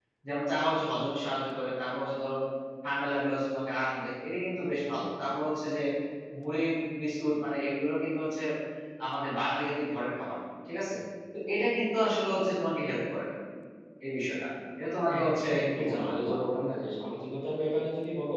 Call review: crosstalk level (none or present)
present